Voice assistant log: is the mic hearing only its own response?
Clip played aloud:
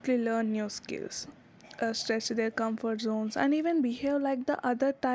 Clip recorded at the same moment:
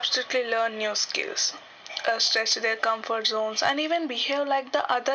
Yes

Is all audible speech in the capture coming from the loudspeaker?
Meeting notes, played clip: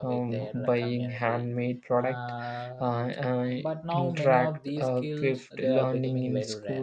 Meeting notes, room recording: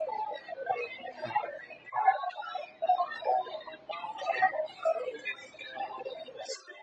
Yes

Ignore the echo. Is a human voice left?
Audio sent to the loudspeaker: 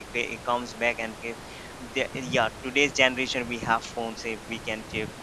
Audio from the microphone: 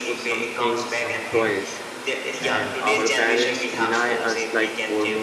Yes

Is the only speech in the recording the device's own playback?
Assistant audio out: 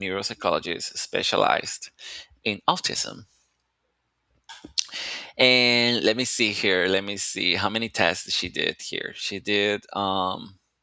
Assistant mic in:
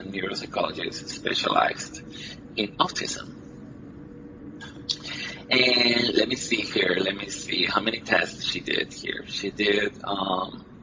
Yes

